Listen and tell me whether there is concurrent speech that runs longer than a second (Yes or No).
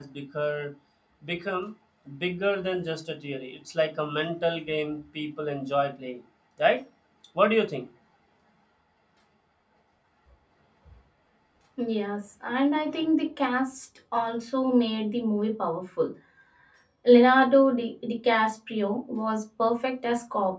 No